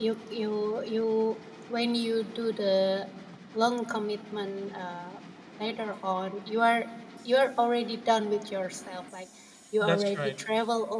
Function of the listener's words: listening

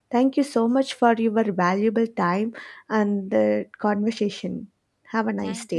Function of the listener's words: taking over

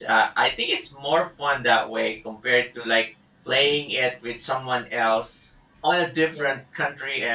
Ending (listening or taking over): listening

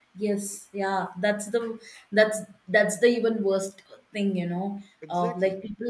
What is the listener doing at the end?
listening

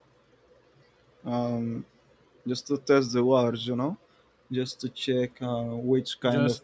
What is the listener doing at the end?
listening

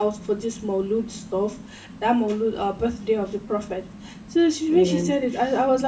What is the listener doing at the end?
listening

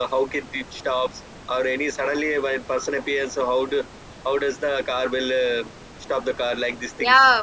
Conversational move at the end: taking over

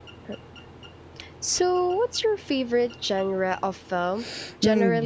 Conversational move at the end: taking over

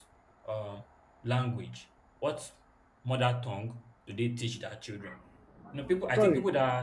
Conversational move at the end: taking over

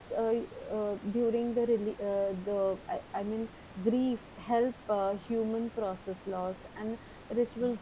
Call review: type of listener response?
listening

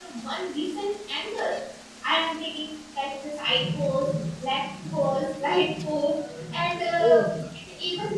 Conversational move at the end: listening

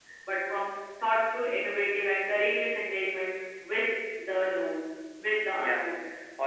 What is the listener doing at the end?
taking over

